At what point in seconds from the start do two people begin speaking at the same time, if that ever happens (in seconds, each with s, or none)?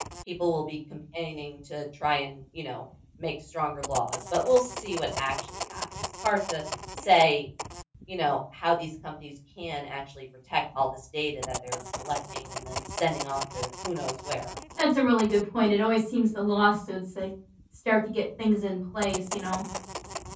none